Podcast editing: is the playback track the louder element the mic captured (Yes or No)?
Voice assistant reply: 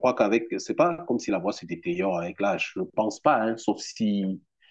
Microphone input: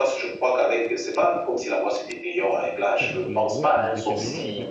Yes